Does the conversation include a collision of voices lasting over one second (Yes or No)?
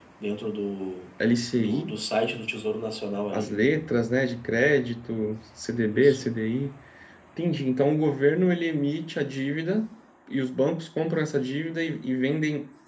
No